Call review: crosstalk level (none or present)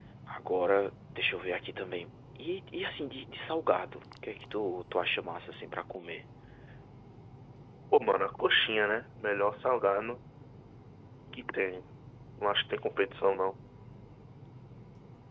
none